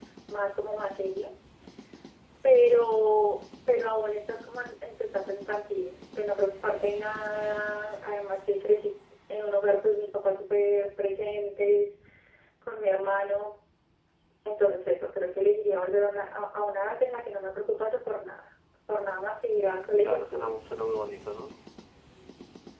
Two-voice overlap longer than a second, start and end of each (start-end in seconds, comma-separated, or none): none